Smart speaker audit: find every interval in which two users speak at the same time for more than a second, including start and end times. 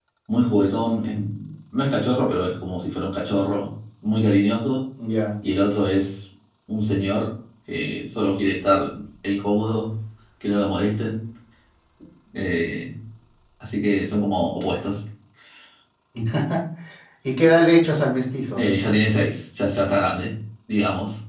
none

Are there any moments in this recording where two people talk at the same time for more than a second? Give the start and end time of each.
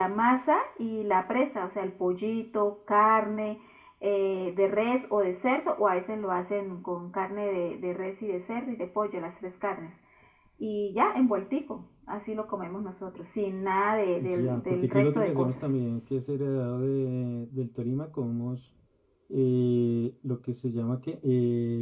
14.2-15.6

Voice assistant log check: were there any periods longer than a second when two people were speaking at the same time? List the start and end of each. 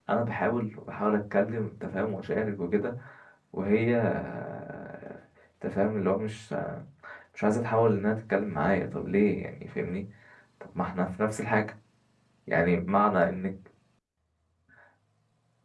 none

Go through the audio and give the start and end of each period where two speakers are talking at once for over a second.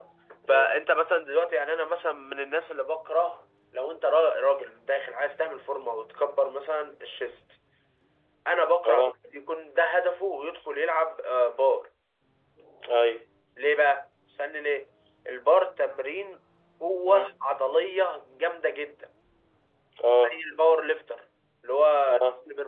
none

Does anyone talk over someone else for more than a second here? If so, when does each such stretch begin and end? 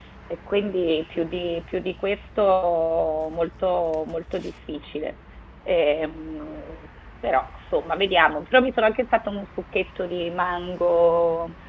none

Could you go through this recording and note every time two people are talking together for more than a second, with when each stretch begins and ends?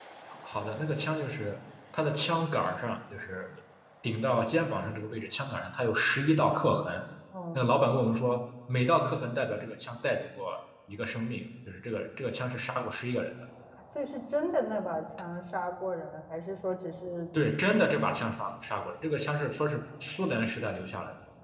none

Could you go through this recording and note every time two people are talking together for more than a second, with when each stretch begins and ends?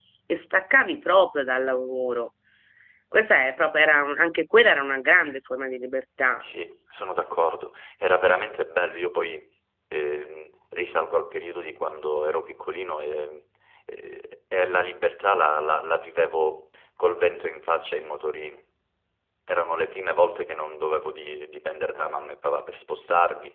none

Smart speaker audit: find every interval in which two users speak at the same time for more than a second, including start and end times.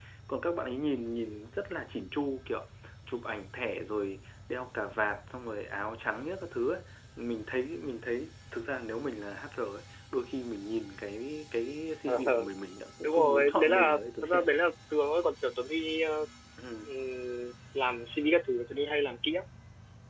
13.0-14.4

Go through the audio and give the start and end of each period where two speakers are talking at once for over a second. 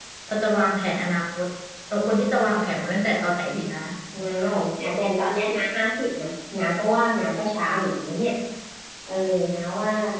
none

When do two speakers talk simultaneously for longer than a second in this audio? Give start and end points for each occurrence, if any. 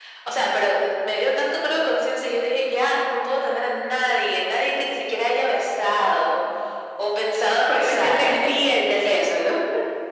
7.7-9.5

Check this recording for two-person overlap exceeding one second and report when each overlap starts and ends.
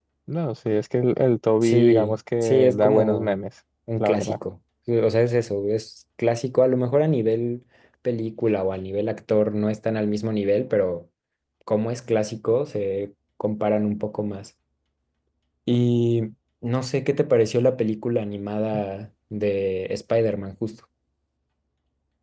1.6-3.3

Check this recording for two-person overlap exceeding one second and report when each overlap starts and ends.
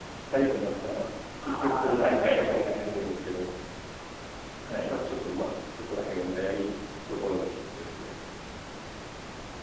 1.5-3.0

